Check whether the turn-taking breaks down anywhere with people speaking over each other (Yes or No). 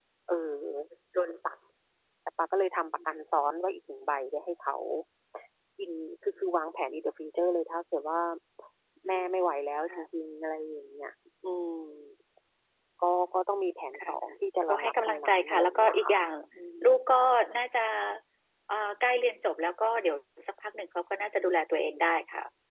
Yes